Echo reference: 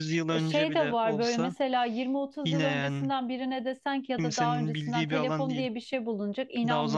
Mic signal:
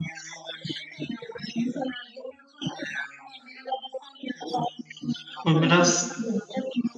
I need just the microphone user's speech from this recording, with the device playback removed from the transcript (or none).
o biraz